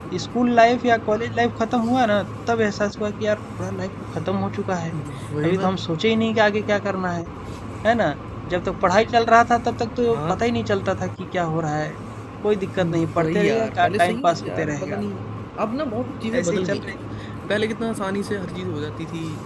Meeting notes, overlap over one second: present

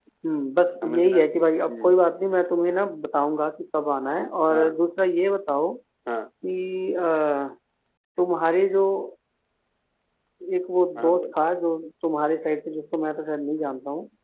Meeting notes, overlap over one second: none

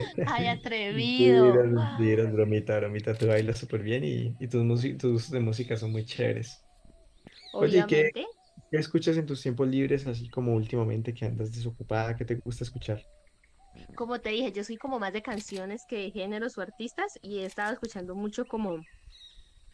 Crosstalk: present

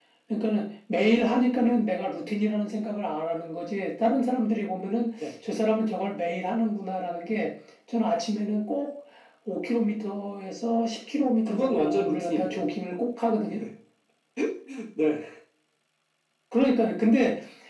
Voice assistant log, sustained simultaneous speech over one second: present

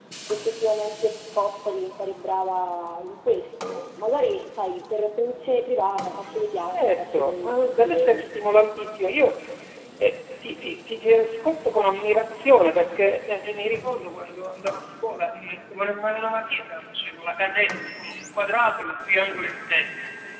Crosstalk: present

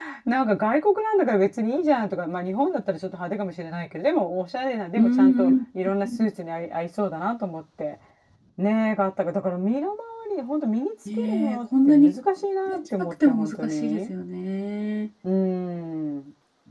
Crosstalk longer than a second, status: present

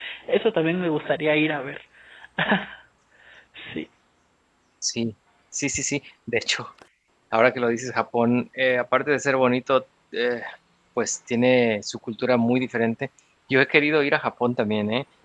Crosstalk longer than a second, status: none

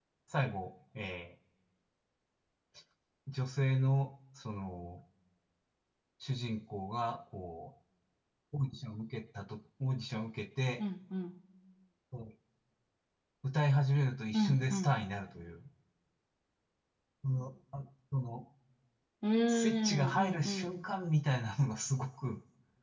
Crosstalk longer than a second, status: present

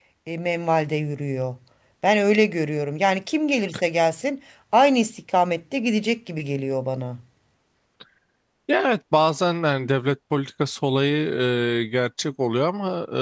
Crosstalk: none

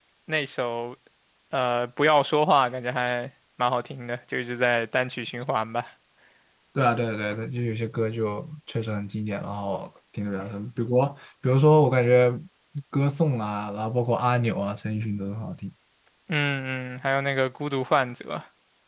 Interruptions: none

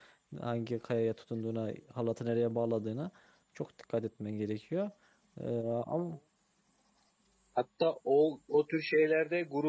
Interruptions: none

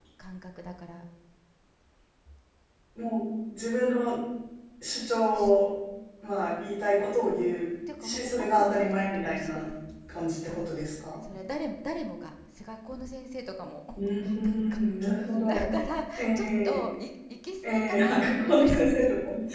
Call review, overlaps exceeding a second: present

